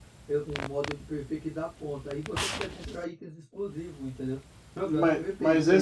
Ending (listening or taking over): taking over